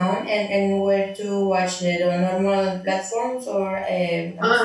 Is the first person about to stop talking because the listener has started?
Yes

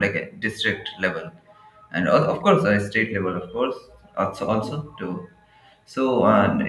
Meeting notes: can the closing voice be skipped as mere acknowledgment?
Yes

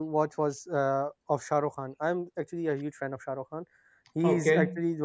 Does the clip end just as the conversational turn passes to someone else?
No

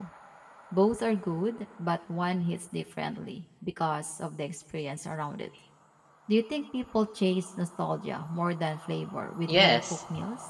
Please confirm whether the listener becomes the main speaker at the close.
Yes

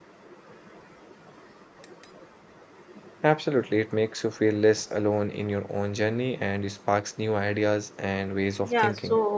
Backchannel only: No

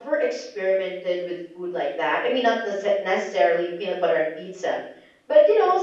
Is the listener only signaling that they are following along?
Yes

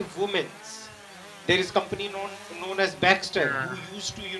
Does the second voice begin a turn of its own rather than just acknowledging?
No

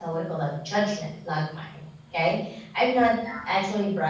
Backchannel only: Yes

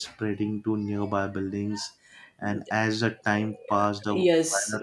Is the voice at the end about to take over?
Yes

